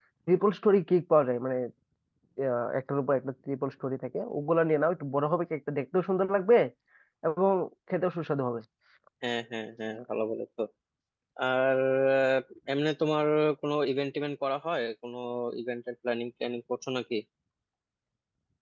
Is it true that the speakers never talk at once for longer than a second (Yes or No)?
Yes